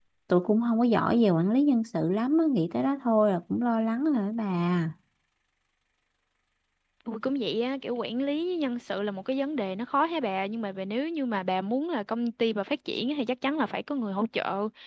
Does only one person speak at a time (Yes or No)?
Yes